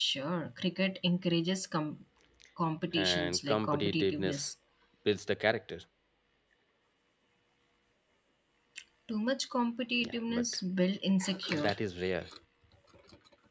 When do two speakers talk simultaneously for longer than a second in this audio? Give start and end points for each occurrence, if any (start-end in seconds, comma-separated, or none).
2.9-4.5